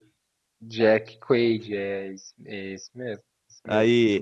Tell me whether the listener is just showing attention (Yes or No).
No